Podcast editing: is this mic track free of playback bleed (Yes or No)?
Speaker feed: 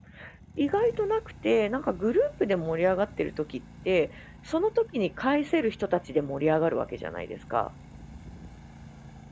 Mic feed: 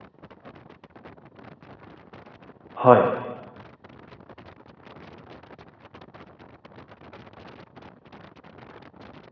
Yes